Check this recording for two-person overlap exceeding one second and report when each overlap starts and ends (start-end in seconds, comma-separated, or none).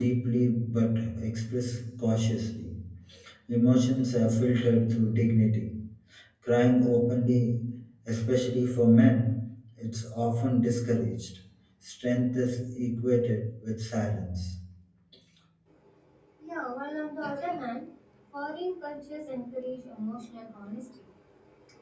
none